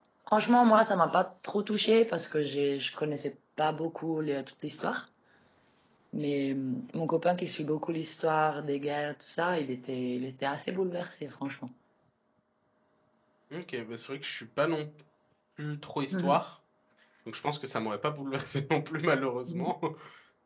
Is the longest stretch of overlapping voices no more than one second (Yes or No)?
Yes